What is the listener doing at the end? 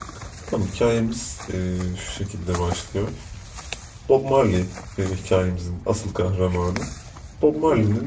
listening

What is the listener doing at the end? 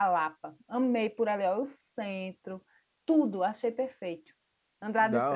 taking over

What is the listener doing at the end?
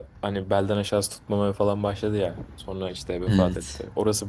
listening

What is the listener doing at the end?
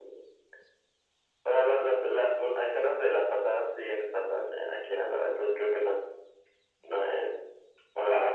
listening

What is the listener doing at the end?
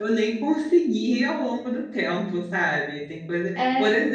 listening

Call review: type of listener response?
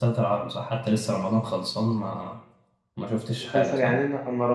taking over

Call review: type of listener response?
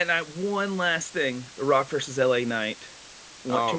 taking over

